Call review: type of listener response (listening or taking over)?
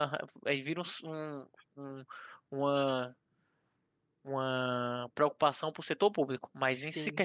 listening